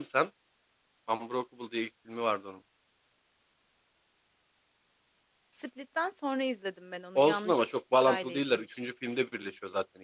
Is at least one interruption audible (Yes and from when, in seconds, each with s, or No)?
Yes, from 7.2 s